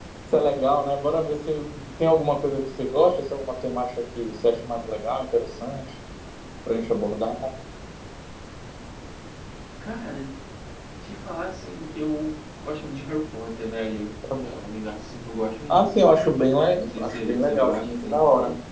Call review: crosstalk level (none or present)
present